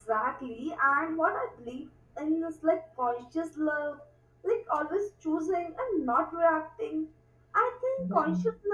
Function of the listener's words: listening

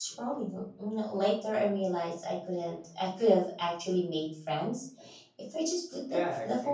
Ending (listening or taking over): taking over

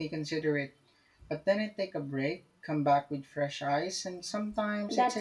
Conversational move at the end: taking over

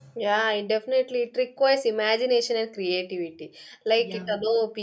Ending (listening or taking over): listening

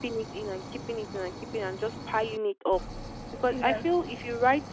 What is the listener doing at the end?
listening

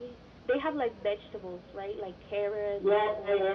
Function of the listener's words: taking over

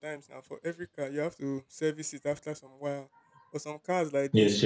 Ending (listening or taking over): listening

